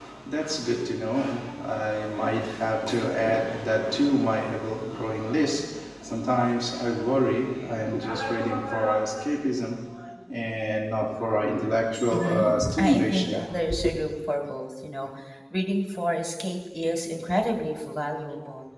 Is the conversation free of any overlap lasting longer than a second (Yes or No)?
No